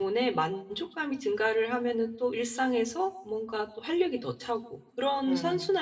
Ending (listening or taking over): listening